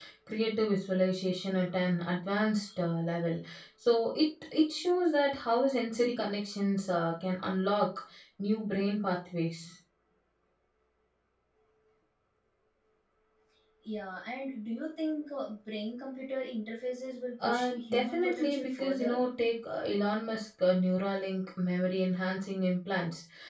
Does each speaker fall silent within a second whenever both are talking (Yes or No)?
No